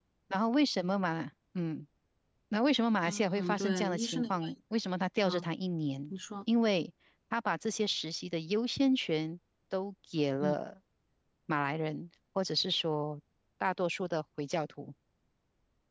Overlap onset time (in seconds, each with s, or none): 3.0 s